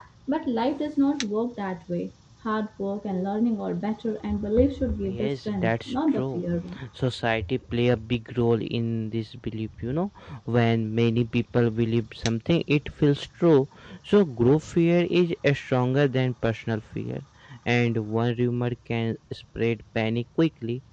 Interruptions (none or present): present